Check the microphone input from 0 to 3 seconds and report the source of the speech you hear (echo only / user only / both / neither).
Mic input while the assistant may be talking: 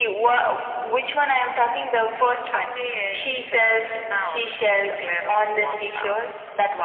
echo only